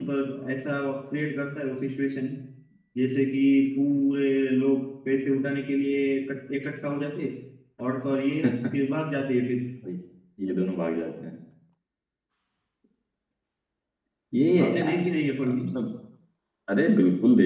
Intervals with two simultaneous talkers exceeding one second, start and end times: none

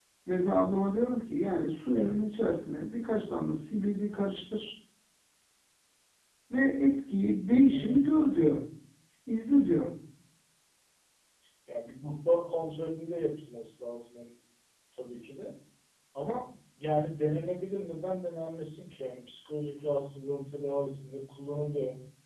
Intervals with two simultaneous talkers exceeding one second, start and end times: none

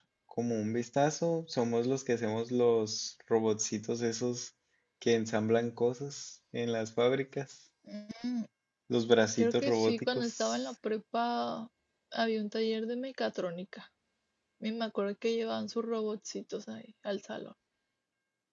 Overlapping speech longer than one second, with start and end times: 9.4-10.6

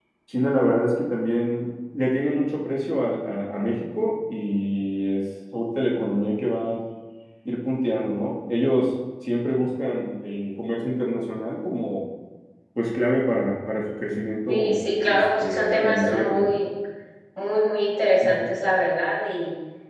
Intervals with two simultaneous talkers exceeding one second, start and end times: 14.5-16.5

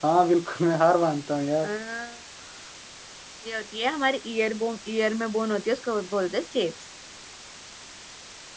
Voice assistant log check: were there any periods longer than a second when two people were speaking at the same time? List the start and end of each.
none

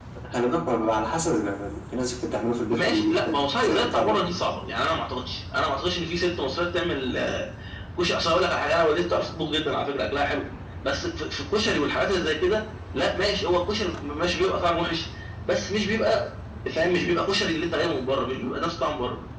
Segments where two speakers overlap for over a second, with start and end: 2.7-4.2

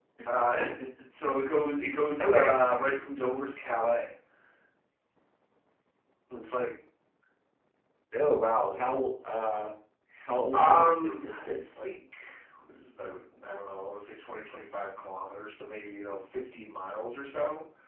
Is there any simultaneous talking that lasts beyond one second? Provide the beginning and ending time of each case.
10.5-11.8

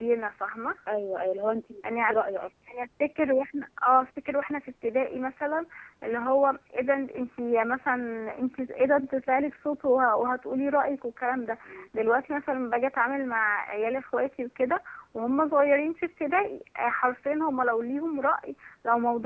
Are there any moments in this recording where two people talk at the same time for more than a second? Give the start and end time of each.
none

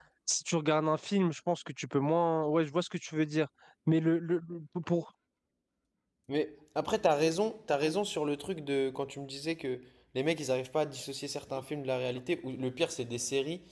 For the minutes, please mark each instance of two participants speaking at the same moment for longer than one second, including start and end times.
none

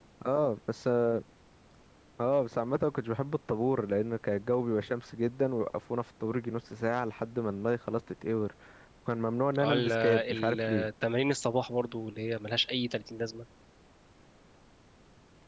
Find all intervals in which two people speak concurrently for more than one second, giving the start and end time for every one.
9.6-10.9

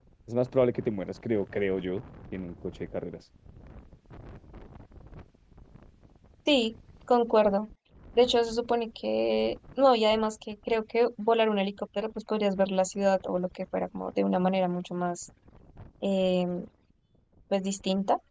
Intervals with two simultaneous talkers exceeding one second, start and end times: none

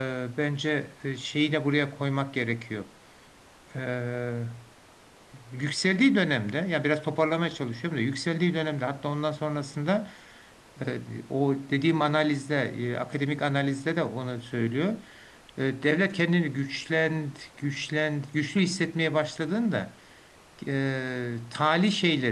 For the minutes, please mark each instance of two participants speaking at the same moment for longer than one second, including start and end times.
none

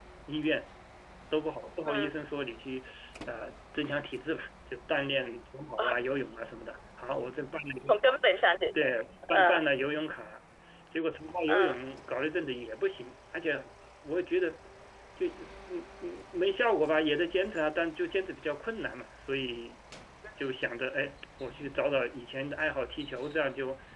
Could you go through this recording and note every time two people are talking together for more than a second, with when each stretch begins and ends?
none

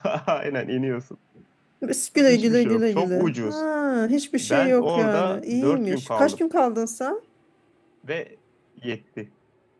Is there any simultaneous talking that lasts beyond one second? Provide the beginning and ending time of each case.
2.3-3.6, 4.4-6.4

